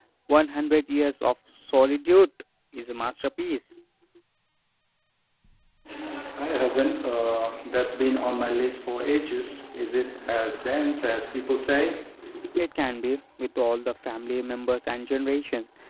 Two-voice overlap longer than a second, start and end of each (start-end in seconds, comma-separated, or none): none